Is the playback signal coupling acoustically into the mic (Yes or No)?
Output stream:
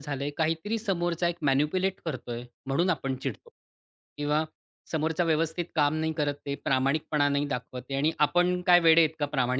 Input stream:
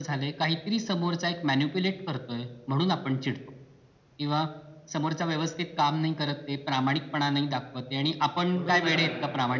Yes